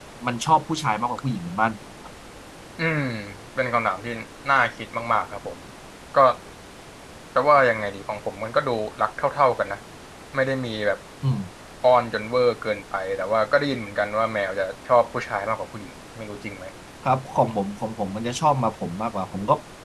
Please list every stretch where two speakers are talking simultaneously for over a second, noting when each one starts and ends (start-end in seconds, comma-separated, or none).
none